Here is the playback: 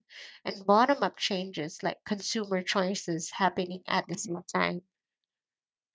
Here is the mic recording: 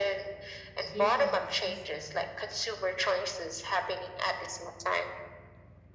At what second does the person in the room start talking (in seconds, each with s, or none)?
0.9 s